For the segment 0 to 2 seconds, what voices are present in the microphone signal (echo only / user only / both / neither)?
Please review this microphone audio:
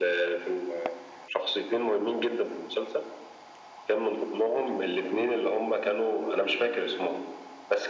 echo only